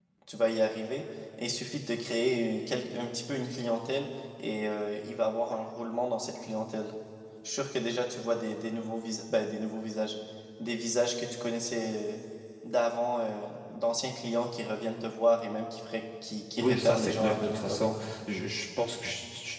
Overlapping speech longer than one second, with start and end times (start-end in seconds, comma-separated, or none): 16.6-18.0